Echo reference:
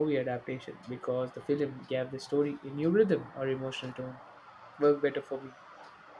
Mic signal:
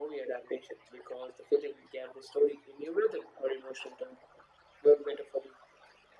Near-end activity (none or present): none